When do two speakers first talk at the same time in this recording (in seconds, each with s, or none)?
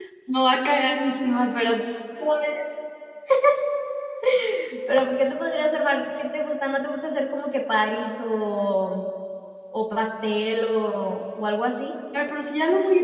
none